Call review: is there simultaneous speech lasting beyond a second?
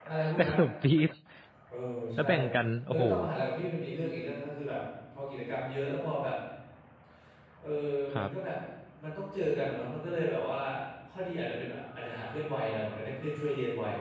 No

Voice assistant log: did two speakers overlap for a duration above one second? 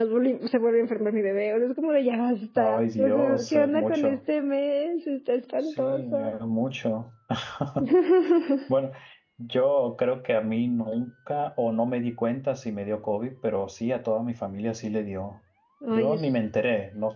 Yes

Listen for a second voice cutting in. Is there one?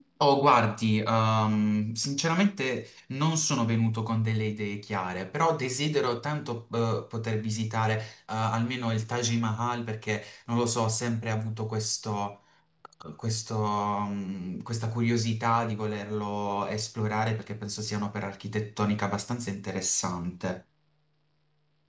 No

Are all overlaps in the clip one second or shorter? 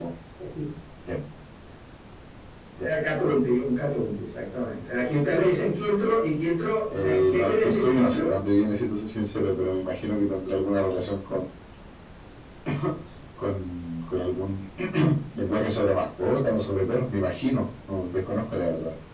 No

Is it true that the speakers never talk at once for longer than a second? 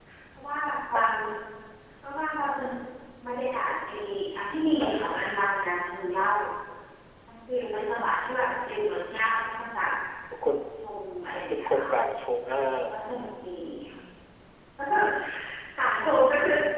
Yes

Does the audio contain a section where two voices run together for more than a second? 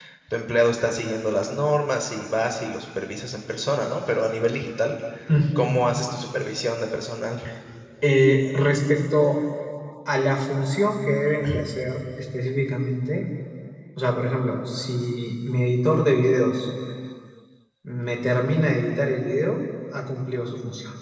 No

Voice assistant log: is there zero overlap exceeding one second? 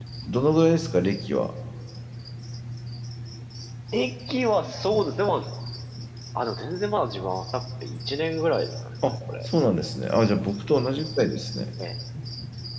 Yes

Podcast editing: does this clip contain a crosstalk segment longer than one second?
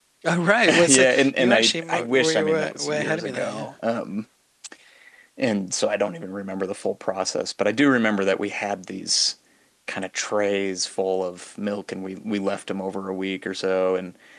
Yes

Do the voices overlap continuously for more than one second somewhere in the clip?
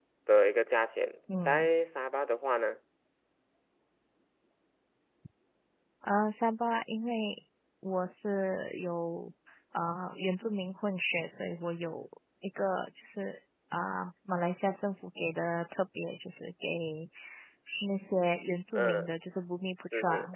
No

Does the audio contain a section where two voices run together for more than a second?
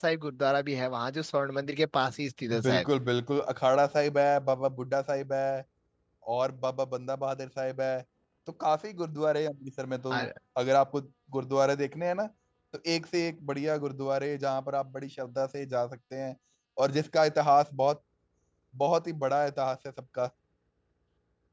No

